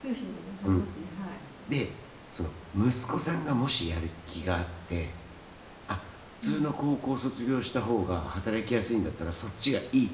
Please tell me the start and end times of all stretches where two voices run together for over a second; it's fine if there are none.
none

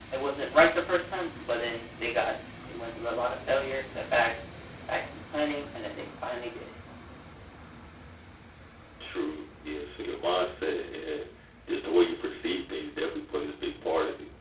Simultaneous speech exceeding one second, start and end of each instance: none

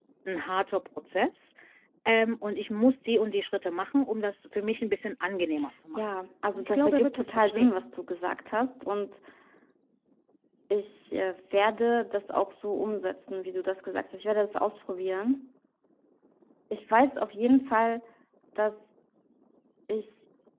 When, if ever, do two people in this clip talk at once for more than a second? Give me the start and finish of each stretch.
6.5-7.8

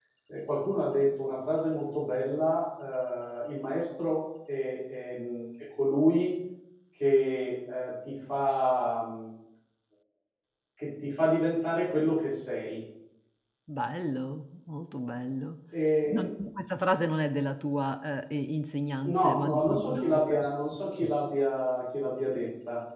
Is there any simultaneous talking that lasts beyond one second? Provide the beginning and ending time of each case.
19.0-20.4

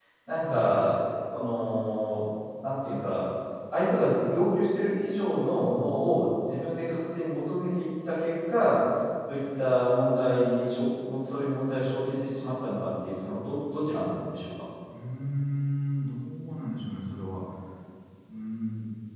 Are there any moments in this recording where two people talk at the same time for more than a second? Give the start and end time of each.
none

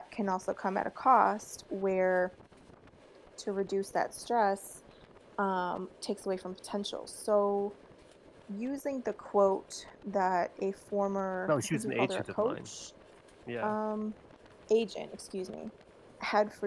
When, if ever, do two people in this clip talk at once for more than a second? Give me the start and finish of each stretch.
11.5-12.7

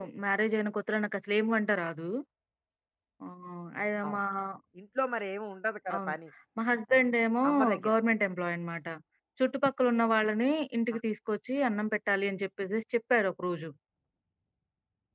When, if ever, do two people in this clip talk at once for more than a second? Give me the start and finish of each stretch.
none

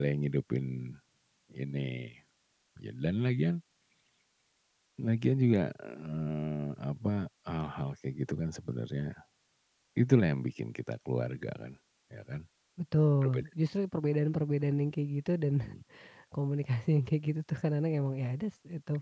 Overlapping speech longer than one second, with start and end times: none

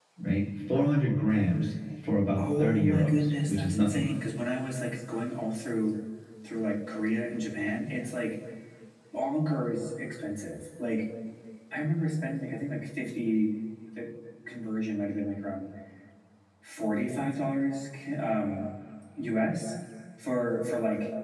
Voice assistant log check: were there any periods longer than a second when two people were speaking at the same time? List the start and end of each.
2.4-4.1

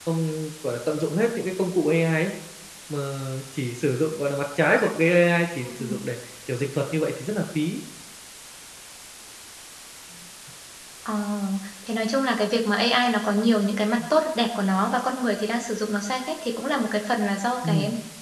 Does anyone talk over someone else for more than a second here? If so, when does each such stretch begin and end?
none

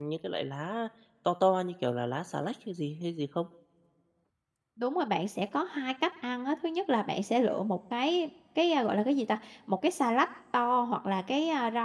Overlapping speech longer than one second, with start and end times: none

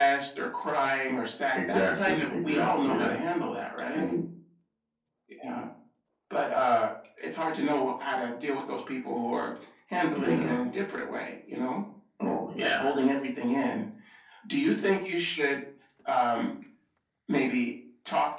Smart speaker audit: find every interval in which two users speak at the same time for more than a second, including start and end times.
1.6-3.2

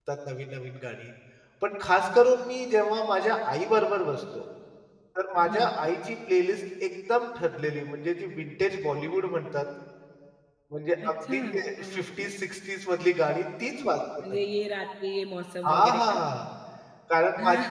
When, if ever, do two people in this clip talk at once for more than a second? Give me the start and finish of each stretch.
11.1-12.3

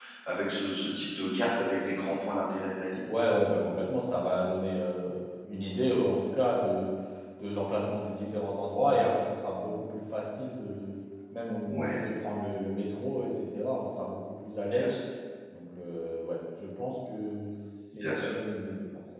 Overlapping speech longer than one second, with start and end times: none

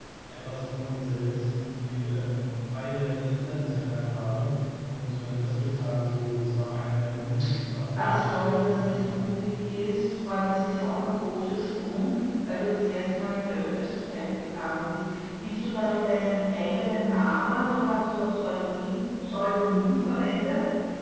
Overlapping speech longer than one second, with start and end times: 8.0-9.2

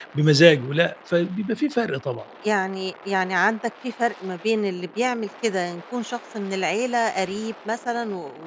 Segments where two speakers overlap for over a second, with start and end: none

